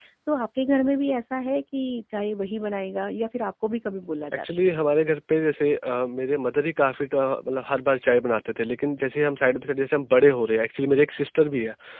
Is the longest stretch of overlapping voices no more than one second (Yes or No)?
Yes